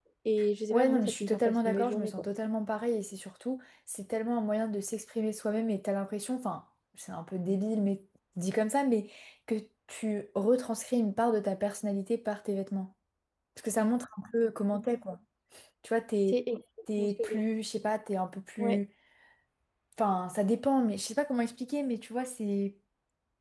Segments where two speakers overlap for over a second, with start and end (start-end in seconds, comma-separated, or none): 0.7-2.3